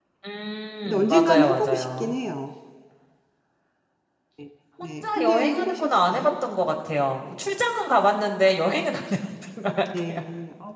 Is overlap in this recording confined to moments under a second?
No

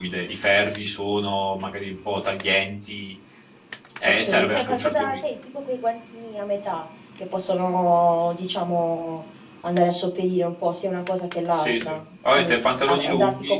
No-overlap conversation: No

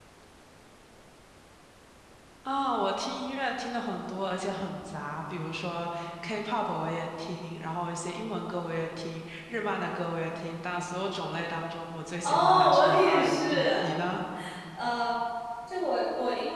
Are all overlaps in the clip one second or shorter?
No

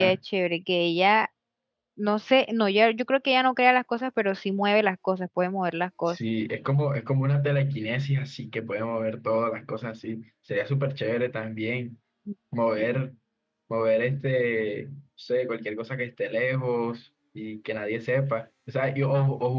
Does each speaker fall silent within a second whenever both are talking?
Yes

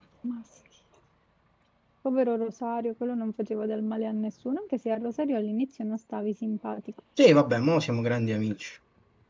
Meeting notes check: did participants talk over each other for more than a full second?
No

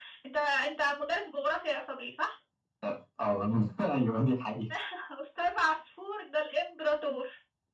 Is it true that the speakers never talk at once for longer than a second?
Yes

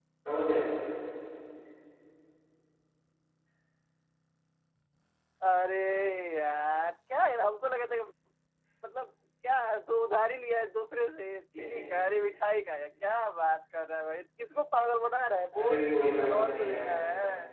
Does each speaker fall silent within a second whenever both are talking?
No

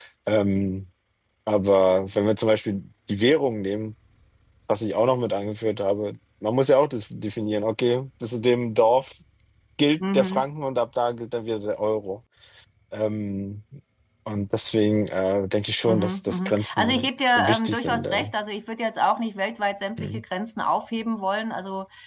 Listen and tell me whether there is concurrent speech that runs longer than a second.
Yes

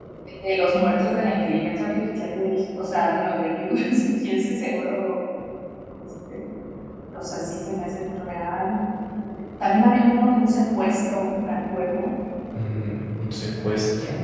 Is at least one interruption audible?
No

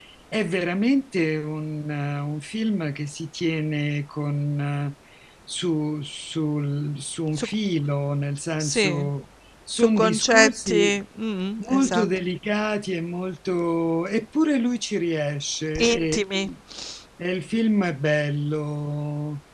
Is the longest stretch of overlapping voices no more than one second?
No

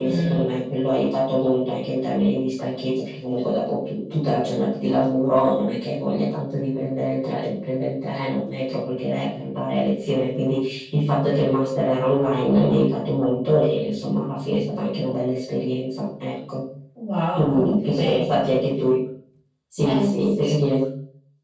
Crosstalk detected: Yes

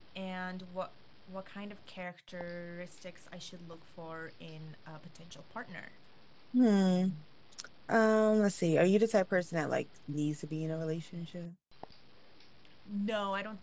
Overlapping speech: No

